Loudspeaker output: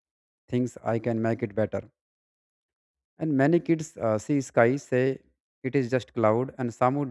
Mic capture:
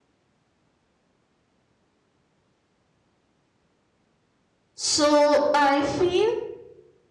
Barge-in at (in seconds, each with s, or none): 4.7 s